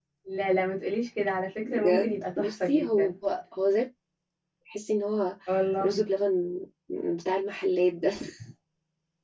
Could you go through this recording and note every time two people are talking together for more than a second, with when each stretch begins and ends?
1.6-3.1

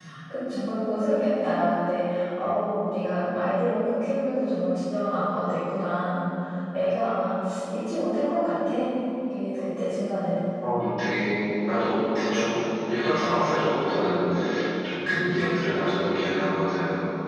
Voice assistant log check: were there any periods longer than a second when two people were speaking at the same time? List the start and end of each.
none

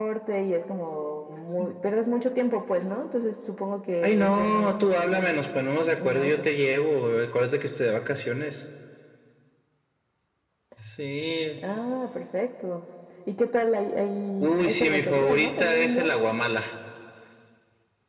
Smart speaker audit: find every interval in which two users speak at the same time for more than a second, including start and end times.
4.0-5.5, 14.4-16.1

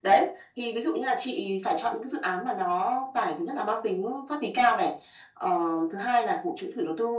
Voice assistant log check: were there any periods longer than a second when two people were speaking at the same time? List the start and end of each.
none

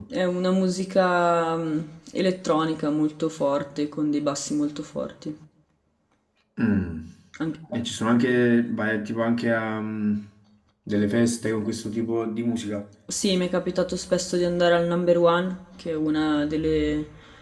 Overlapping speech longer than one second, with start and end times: none

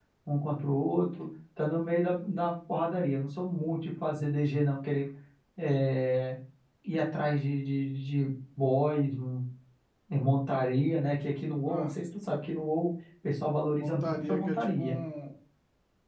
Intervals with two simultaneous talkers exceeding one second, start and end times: 13.7-15.0

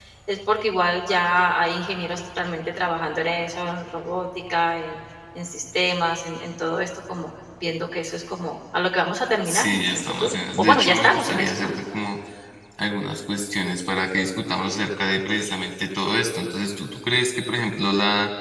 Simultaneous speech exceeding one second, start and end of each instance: 9.4-11.7

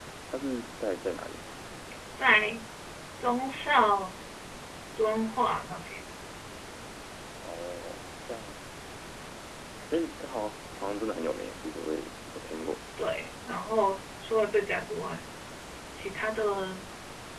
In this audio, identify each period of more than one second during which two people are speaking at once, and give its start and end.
none

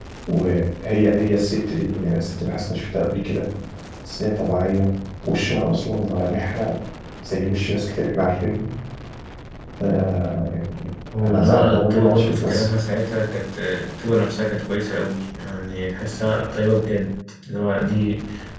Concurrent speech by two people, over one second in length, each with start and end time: 11.2-12.7

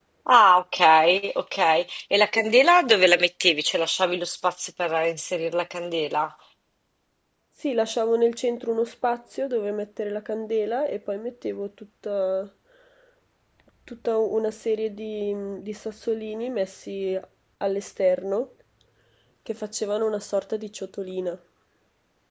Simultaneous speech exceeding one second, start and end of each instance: none

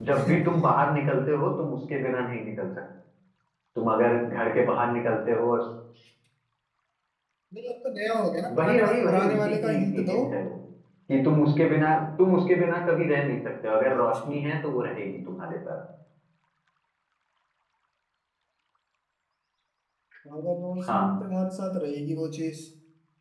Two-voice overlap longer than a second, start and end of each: 8.6-10.2

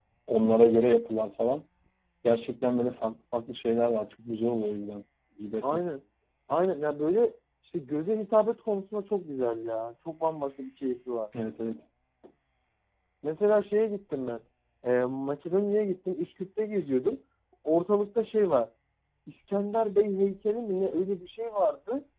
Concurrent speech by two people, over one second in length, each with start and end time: none

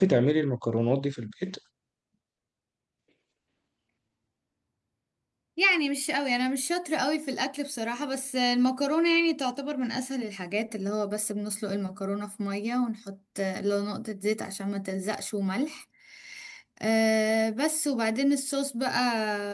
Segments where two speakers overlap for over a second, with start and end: none

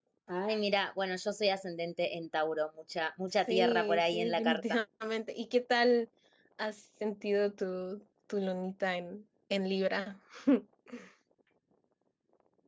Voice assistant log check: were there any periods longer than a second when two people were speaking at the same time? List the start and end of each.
3.5-4.8

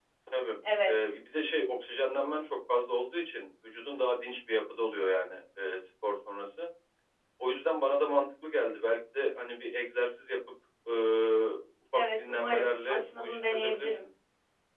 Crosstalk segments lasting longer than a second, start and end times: 11.9-14.0

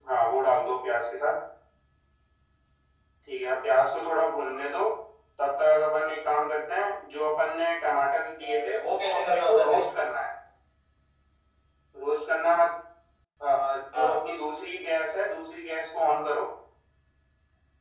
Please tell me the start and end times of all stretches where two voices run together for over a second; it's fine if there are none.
8.4-9.8

